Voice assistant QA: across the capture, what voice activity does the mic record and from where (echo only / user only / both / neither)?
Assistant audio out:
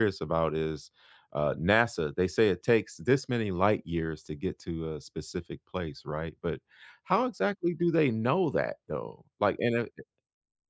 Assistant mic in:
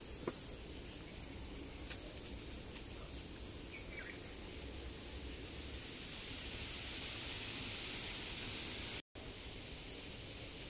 neither